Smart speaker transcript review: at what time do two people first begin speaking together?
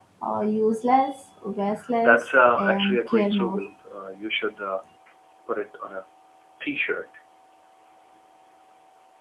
2.0 s

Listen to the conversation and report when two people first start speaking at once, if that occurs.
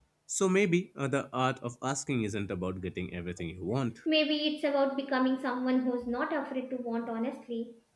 none

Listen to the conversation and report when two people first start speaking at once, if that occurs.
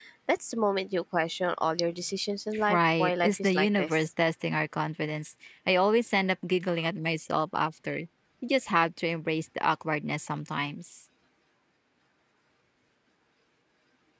2.5 s

